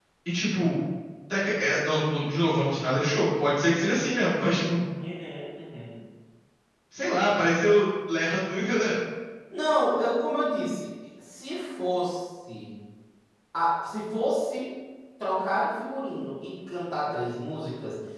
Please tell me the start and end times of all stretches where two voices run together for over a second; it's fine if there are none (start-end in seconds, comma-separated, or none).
none